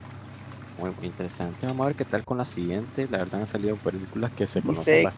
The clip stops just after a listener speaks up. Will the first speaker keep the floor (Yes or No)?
No